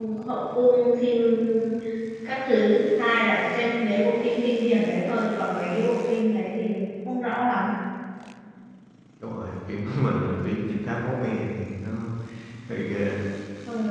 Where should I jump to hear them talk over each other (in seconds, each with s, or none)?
none